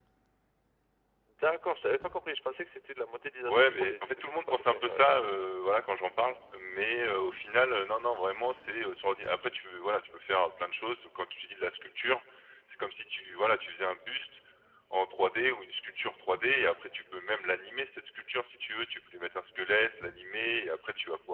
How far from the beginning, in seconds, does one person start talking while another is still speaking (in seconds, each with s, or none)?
3.5 s